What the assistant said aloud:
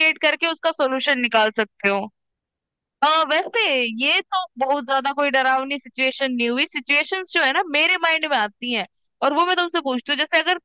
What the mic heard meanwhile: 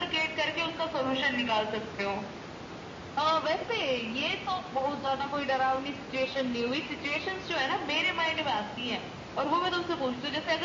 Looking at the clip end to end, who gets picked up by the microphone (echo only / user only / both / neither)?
echo only